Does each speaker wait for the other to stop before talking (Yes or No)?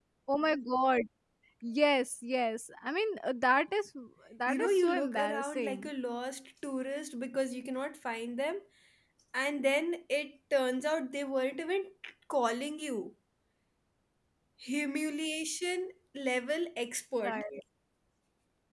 No